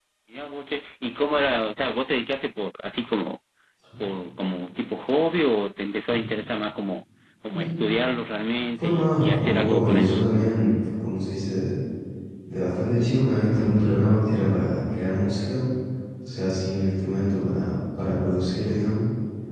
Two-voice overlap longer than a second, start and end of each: 8.8-10.2

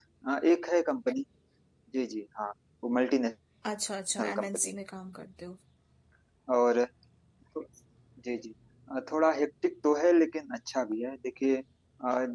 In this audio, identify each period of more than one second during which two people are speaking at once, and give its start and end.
none

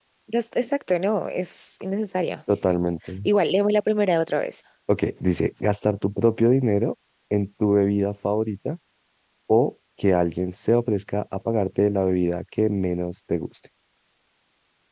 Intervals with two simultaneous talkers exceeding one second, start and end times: none

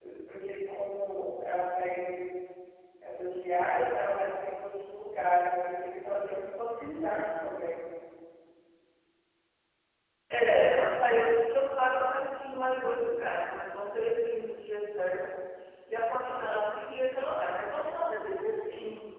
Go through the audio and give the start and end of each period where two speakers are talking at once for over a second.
none

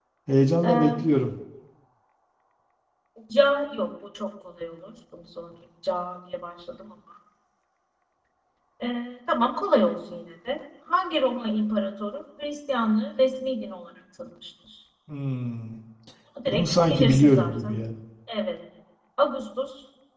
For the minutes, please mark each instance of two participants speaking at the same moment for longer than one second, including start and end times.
16.5-17.8

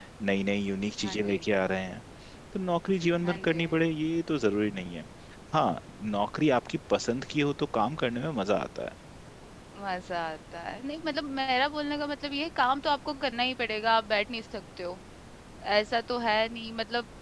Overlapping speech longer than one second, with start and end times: none

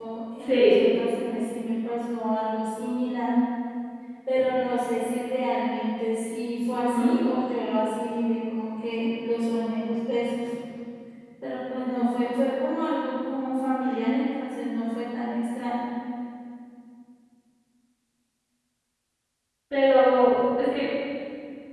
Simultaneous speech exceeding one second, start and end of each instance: none

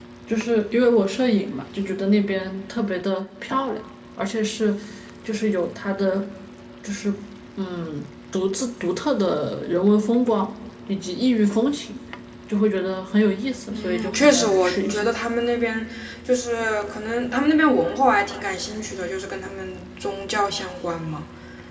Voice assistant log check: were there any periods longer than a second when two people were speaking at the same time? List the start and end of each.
13.7-15.1

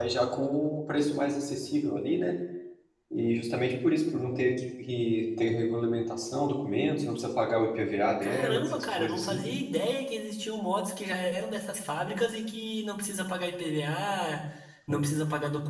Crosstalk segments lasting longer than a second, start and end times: 8.2-9.4

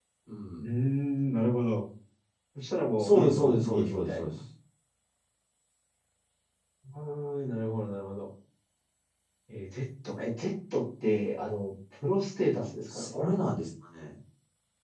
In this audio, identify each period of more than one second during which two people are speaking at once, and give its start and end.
3.0-4.3

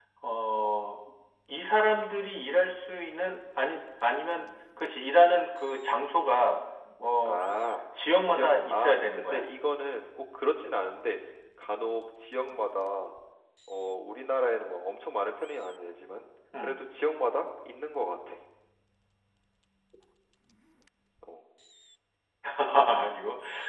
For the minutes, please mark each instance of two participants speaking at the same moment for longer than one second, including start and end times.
8.2-9.4

